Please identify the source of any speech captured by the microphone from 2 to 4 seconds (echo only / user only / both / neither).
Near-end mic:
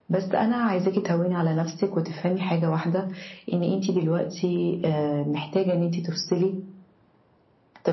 echo only